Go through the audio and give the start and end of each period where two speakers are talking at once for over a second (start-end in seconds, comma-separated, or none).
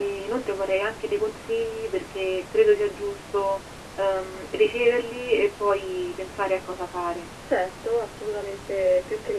none